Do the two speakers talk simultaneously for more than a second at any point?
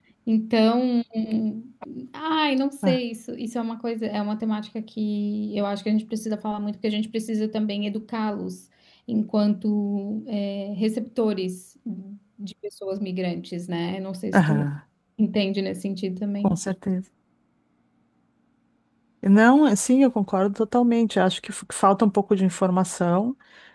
No

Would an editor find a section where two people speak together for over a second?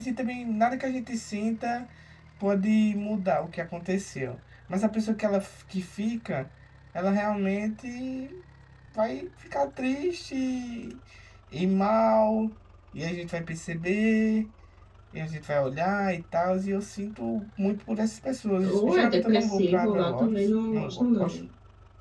Yes, from 18.6 s

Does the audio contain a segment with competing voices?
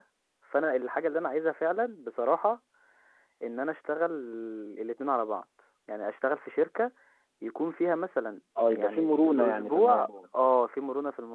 Yes, from 8.6 s

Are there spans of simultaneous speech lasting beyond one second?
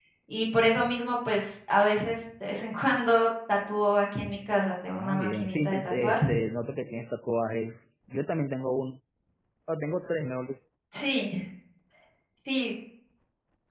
Yes, from 4.9 s

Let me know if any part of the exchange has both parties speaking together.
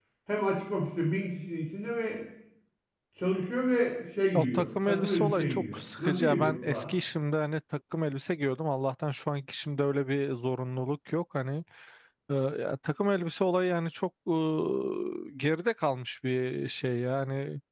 Yes, from 4.3 s

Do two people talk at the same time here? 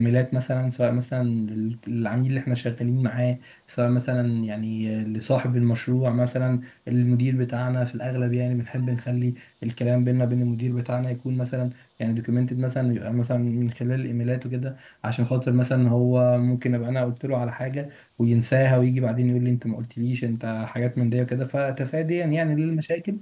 No

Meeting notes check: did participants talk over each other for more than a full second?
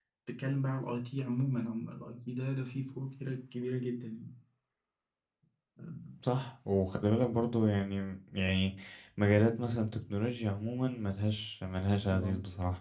No

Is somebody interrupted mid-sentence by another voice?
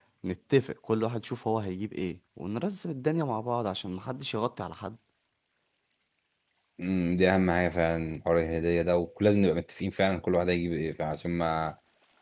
No

